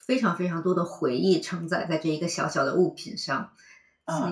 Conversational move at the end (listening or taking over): taking over